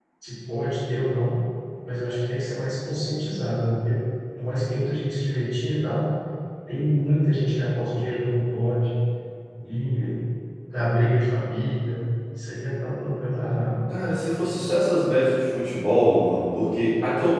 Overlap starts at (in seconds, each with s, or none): none